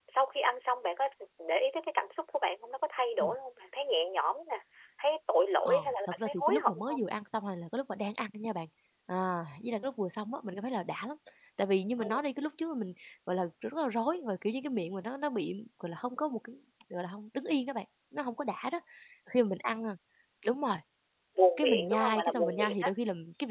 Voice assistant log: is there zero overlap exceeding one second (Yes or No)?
No